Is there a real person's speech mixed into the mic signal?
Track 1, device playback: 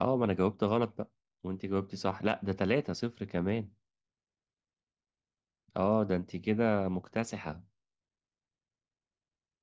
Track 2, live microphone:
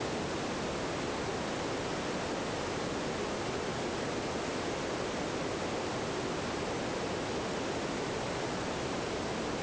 No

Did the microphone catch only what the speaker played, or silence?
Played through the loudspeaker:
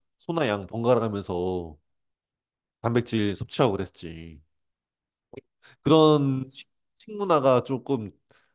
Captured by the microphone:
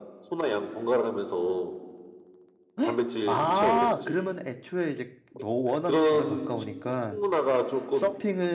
No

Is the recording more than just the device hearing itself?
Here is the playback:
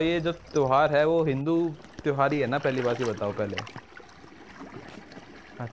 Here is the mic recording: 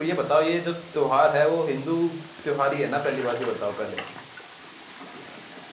No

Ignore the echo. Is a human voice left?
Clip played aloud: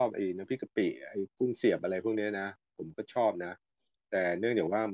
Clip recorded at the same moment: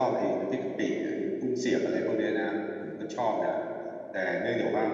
No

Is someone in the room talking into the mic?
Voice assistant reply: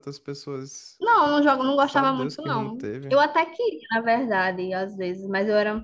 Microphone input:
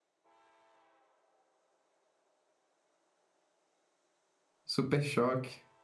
Yes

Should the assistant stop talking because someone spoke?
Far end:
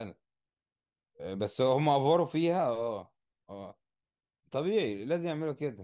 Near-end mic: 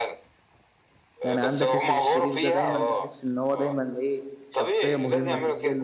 Yes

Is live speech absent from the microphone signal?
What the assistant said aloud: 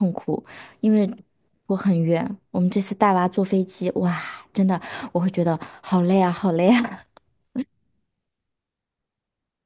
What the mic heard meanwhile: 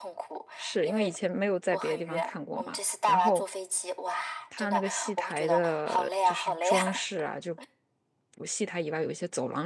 No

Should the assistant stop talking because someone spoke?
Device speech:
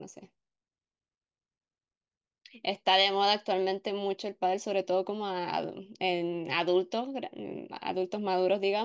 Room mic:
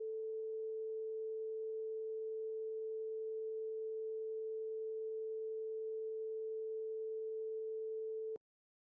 No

